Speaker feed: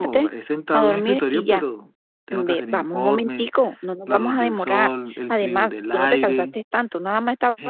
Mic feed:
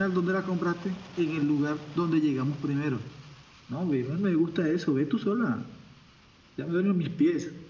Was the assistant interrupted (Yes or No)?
Yes